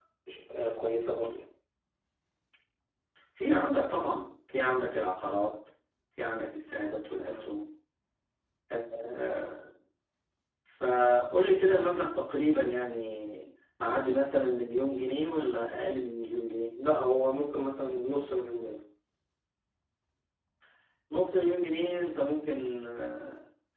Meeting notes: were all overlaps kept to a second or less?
Yes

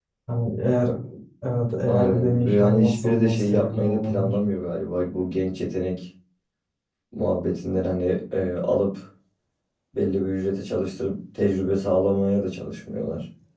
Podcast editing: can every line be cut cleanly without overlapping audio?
No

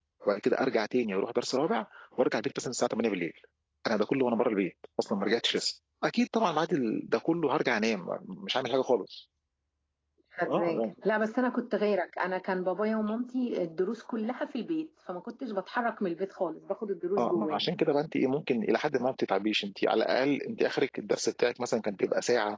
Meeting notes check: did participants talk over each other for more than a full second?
No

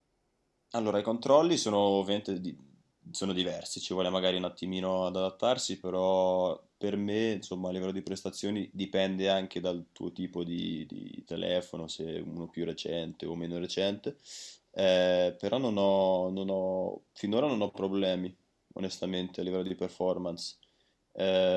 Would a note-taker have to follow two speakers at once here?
No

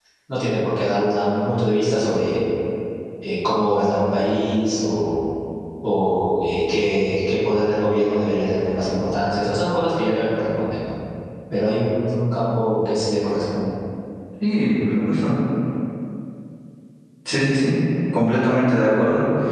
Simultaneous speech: No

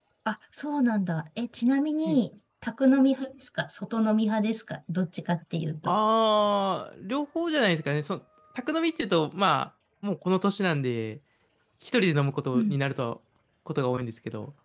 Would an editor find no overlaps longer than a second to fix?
Yes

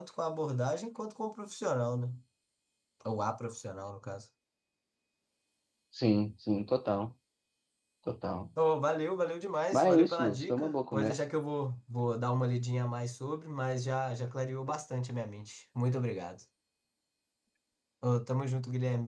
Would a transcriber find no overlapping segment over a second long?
No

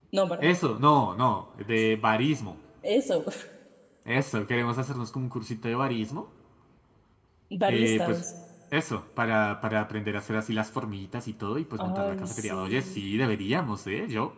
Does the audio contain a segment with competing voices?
Yes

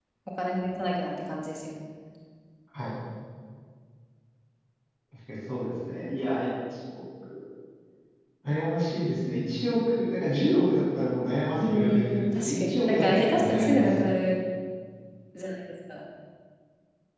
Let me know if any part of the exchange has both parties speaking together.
Yes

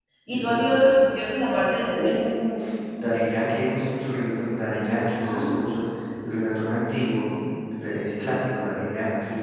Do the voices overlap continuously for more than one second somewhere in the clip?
No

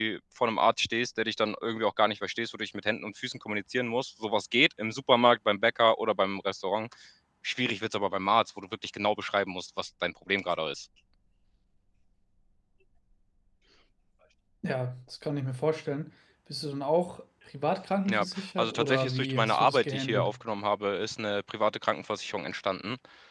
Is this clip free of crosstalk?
No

